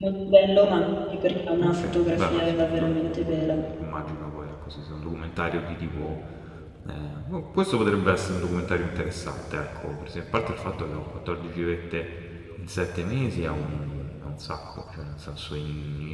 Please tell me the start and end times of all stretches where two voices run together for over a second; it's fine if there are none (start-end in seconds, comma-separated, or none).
1.6-3.5